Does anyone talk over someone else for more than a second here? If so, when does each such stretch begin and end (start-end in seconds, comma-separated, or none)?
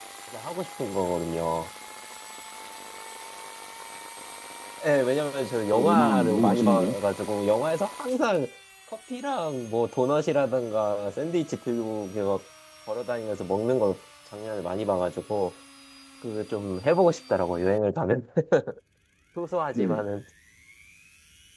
5.7-6.9